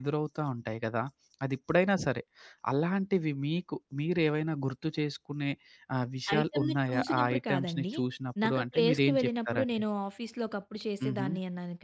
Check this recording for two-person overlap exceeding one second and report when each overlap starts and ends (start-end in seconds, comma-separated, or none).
6.4-7.8, 8.4-9.7